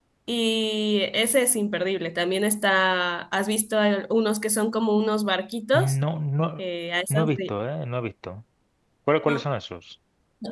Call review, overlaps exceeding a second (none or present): none